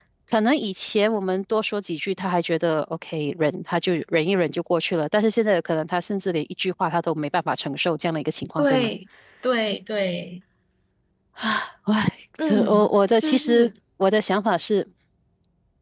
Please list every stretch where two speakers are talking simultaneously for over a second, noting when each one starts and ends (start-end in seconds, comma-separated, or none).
12.4-13.7